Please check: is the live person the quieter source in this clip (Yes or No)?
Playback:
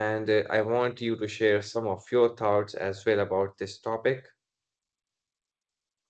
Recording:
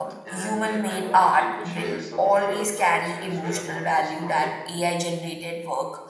No